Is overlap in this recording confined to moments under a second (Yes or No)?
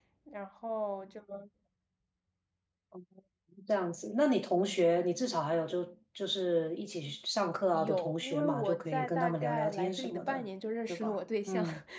No